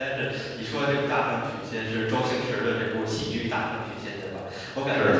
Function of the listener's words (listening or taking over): listening